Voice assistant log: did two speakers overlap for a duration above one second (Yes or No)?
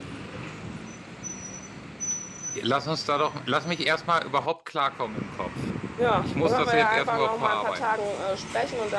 Yes